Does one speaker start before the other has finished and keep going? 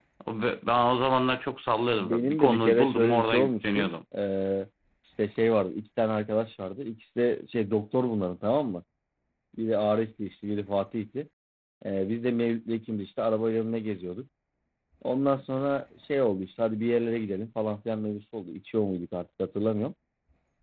Yes, from 1.9 s

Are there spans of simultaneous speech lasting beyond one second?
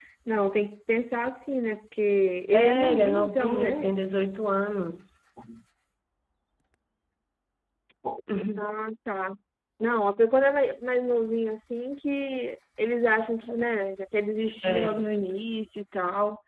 Yes, from 2.5 s

